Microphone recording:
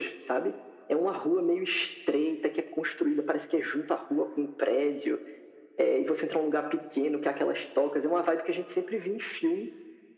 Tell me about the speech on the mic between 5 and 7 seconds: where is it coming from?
echo only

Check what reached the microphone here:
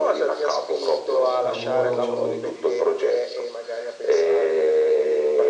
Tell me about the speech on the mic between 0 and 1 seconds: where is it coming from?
echo only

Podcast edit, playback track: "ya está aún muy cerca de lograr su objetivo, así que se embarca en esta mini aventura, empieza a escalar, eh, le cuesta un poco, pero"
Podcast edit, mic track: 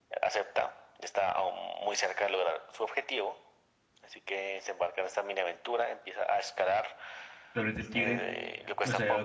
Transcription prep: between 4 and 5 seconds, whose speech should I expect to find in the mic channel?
echo only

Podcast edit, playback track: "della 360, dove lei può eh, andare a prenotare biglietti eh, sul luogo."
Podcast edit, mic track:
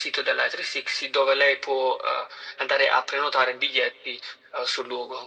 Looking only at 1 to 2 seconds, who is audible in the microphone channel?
echo only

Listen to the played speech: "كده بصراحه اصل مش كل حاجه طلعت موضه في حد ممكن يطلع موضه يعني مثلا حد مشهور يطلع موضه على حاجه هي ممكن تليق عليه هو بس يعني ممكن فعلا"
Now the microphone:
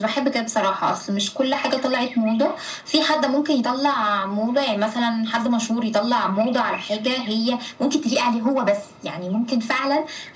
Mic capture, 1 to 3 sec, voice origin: echo only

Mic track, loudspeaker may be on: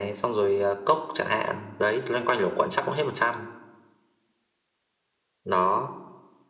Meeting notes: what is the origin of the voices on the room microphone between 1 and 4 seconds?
echo only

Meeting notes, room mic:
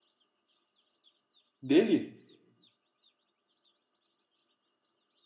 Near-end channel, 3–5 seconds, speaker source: neither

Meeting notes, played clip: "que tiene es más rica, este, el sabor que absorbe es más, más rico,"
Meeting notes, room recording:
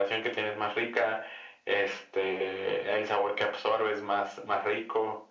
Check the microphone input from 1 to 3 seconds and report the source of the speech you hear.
echo only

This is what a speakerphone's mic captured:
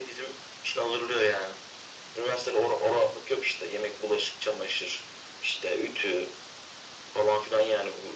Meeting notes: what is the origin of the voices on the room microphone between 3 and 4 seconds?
echo only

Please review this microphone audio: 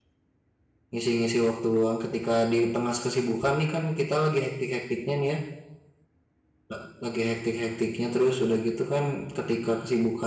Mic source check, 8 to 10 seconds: user only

